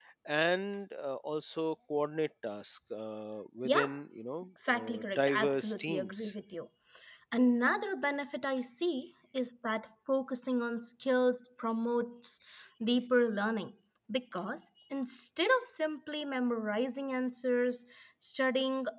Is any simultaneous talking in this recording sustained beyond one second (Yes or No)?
Yes